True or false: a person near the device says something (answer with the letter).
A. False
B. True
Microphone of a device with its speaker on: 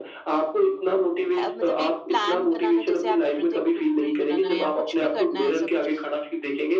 B